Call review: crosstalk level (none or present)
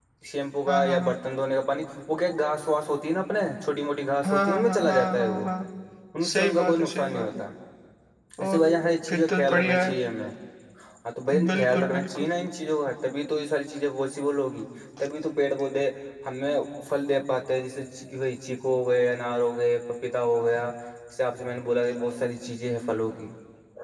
present